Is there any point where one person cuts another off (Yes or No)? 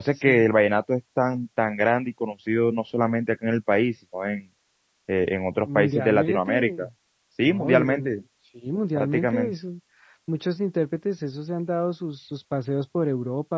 Yes